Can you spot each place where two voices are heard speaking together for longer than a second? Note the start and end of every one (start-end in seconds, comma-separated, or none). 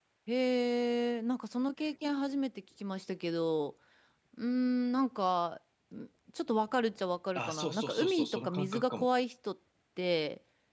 7.3-9.1